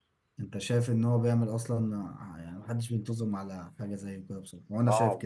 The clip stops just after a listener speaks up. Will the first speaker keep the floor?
No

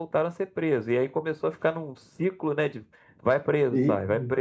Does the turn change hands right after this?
Yes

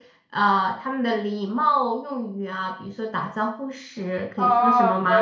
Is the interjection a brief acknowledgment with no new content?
No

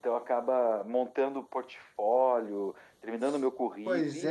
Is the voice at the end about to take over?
Yes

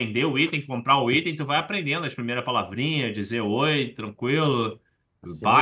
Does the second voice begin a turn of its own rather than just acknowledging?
Yes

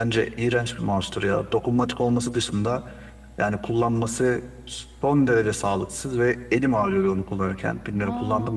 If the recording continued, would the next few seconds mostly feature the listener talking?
Yes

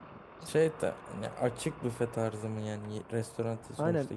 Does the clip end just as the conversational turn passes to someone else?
Yes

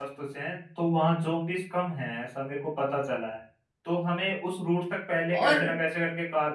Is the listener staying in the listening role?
Yes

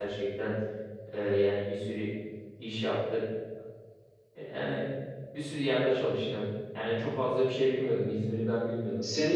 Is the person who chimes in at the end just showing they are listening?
No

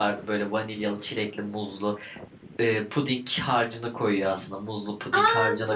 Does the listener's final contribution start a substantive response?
Yes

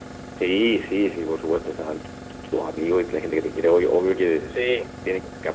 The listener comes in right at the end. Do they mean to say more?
No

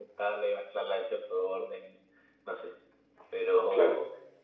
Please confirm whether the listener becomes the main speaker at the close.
No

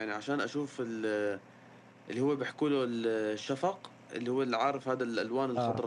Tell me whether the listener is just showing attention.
No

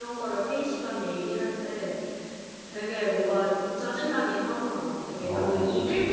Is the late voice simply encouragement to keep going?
Yes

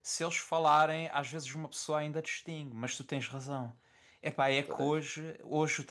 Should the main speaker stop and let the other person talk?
No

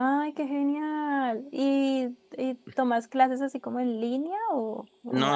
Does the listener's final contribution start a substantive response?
Yes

